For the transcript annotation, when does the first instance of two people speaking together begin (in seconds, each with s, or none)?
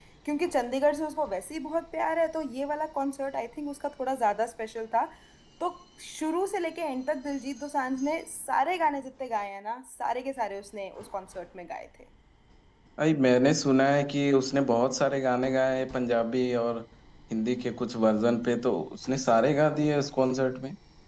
none